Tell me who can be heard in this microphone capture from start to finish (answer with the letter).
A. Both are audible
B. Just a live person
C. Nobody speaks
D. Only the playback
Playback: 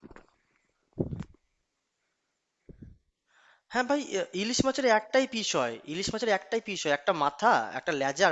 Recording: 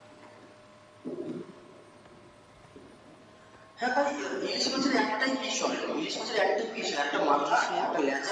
A